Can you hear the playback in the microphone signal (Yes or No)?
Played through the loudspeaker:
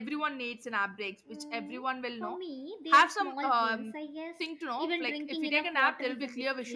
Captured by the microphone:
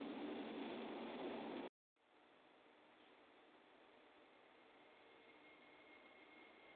No